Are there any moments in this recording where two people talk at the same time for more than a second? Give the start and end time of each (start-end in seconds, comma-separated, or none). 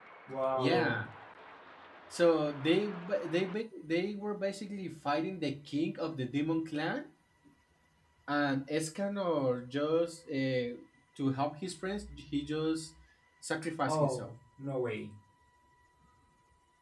none